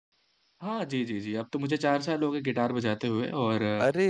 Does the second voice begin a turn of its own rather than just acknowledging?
No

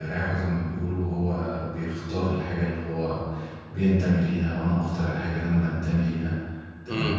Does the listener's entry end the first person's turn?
No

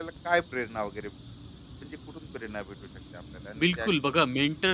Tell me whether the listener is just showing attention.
No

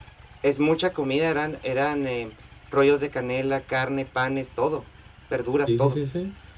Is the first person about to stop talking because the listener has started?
Yes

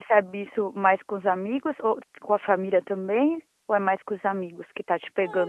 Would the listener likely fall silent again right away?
No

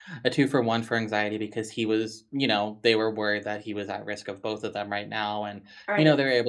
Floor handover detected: No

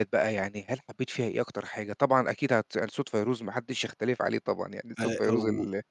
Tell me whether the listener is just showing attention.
Yes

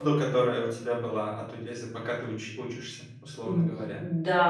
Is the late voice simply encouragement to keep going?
No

